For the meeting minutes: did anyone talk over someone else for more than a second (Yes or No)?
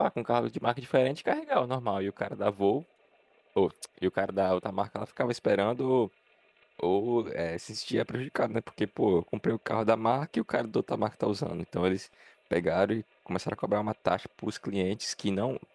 No